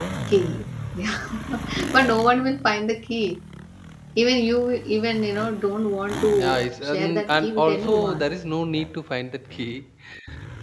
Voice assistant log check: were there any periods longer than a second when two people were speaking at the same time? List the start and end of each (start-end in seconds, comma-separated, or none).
6.3-8.2